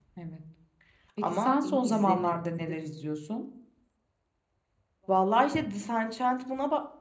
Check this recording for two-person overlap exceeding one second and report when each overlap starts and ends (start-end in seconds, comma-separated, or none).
1.4-2.8